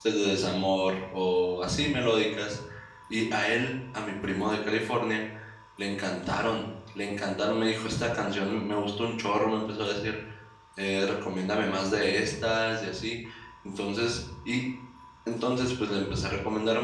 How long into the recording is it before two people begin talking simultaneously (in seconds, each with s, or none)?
none